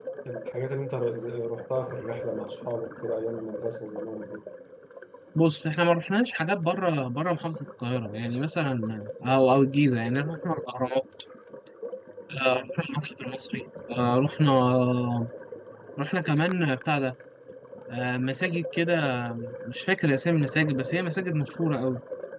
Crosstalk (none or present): none